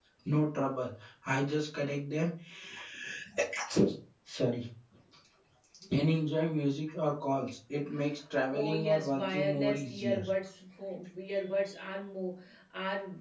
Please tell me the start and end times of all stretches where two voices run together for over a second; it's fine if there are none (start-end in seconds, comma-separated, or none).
8.5-10.2